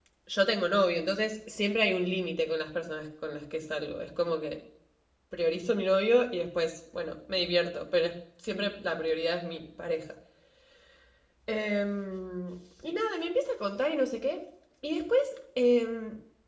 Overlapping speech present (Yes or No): No